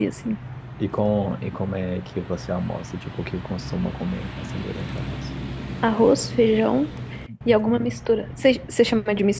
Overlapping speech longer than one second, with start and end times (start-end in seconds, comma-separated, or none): none